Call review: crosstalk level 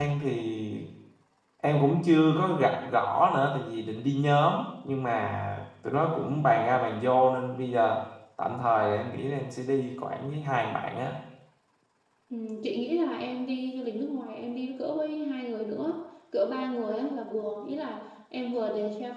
none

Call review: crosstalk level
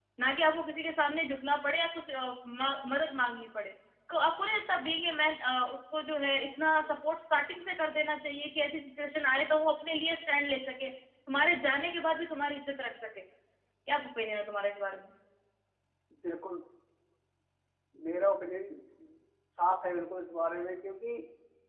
none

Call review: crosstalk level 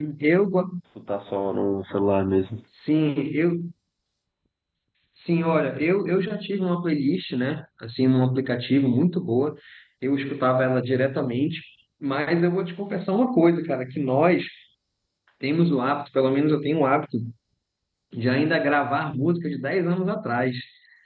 none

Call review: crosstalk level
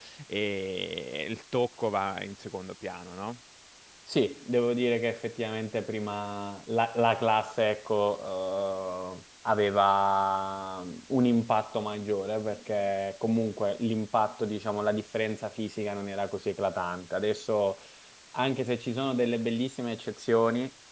none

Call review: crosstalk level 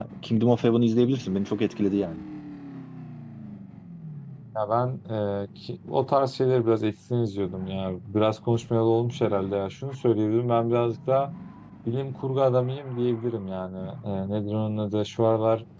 none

